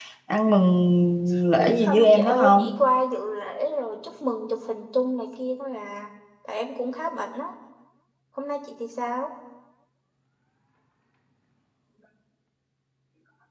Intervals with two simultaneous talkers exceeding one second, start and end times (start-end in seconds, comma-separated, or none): 1.6-2.8